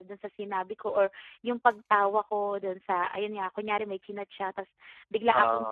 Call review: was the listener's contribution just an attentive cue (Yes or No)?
Yes